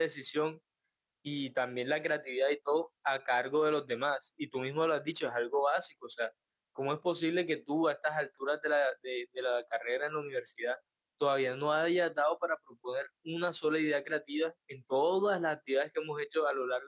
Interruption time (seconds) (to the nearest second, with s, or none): none